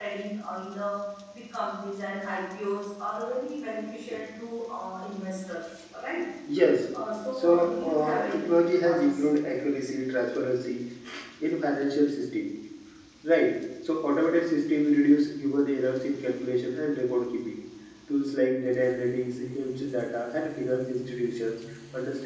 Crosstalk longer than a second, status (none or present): present